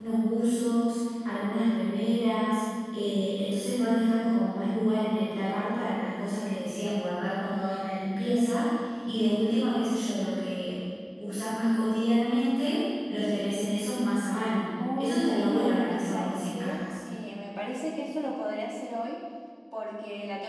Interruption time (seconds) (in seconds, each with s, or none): 14.8 s